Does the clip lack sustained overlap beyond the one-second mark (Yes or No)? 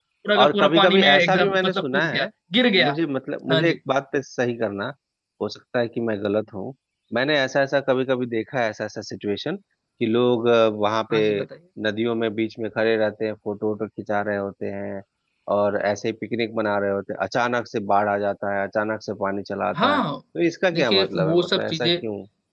No